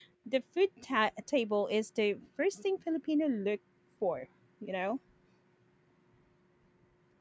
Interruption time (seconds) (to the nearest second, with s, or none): none